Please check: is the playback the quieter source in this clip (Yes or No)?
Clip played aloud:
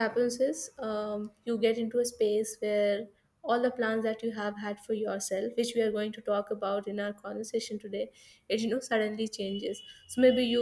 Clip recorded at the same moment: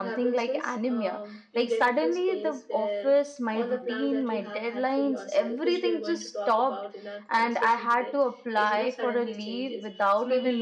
Yes